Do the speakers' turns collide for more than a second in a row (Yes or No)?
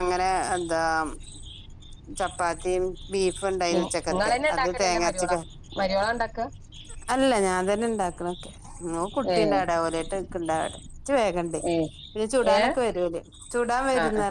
Yes